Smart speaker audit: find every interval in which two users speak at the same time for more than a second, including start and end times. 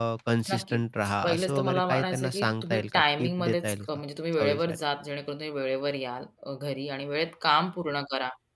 1.2-3.9

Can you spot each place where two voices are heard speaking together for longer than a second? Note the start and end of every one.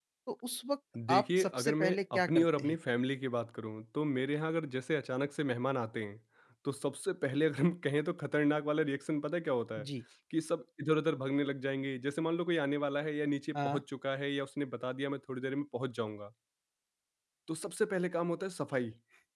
1.1-2.8

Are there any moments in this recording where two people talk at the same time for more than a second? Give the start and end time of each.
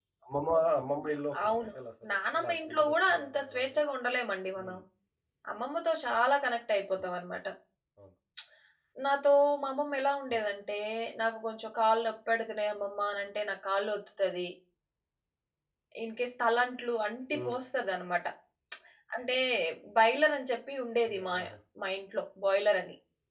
2.1-3.8

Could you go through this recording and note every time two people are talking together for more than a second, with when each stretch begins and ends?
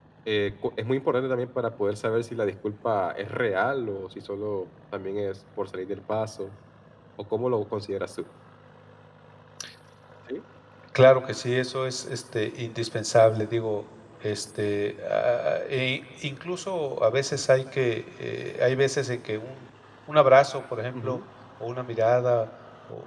none

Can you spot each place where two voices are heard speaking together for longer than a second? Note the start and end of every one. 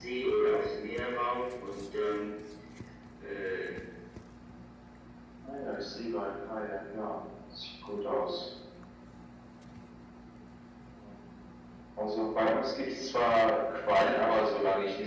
none

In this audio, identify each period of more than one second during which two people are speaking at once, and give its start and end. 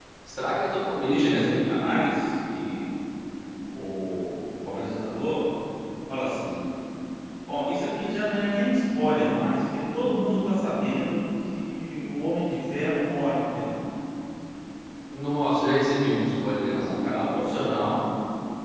none

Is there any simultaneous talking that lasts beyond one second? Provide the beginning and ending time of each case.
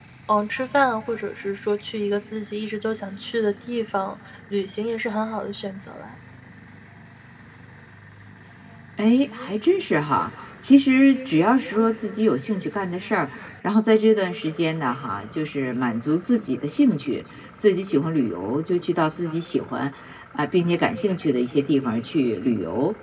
none

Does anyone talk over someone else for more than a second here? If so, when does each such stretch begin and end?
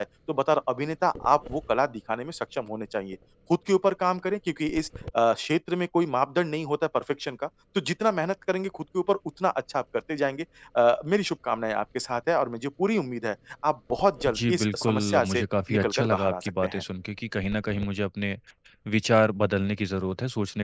14.3-16.8

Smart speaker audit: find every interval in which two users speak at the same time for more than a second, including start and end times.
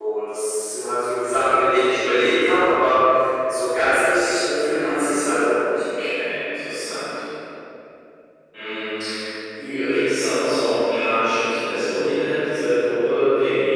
4.6-5.8

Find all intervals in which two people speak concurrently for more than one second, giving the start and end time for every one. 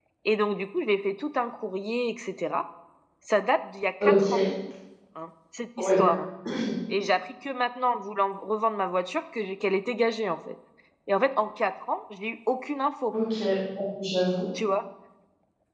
none

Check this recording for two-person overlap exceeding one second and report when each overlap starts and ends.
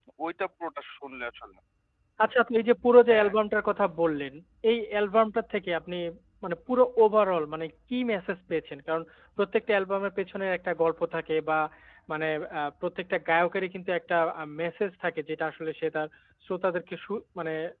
none

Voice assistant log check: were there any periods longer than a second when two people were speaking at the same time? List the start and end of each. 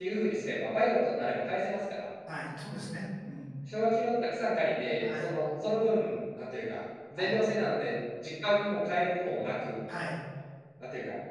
none

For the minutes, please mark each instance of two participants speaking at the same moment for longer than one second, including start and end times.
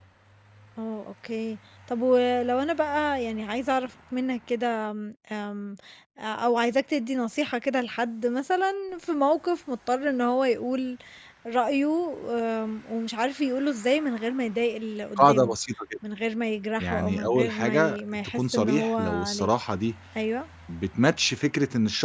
16.8-19.5

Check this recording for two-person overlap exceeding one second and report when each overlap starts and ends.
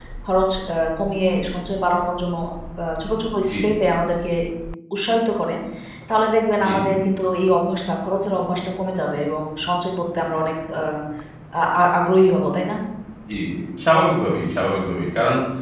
none

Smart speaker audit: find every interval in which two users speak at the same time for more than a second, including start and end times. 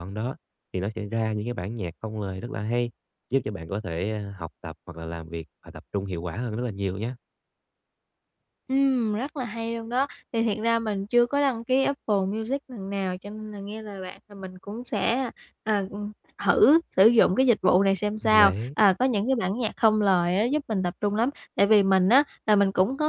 none

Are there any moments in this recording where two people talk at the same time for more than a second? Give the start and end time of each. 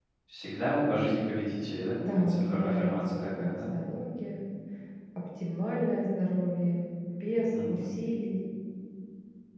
2.1-3.7

